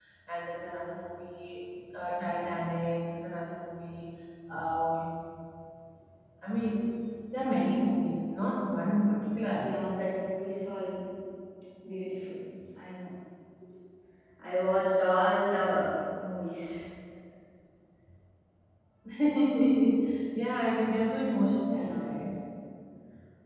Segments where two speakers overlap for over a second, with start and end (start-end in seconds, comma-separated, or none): none